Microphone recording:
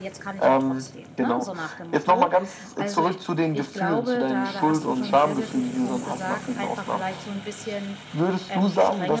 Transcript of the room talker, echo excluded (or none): none